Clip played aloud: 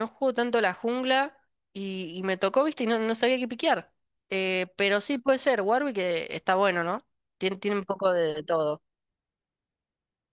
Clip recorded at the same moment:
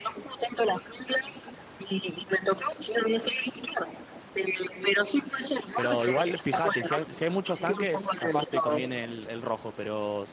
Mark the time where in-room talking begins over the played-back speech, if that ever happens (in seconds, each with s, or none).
5.7 s